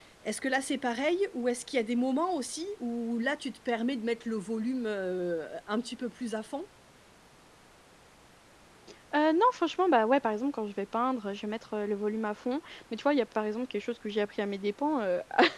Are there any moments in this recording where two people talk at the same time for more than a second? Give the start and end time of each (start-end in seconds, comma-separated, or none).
none